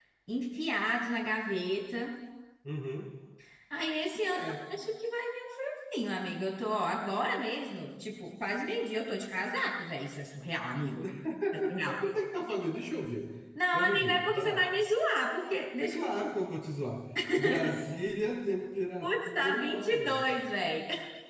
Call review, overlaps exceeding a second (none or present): present